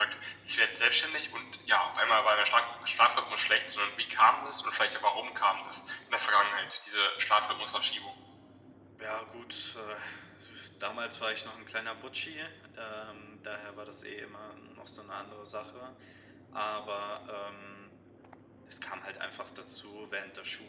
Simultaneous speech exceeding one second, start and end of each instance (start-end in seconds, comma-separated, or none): none